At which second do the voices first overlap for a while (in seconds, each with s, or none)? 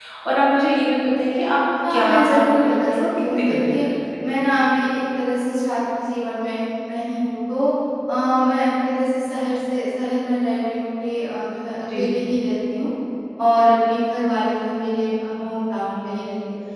1.9 s